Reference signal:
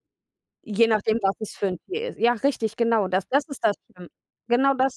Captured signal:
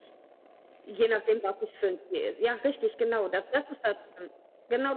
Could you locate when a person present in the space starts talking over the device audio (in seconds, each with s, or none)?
none